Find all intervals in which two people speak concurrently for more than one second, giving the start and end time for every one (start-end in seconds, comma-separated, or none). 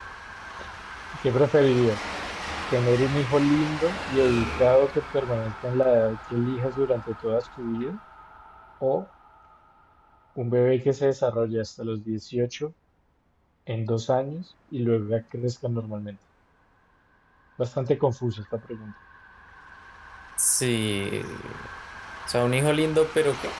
none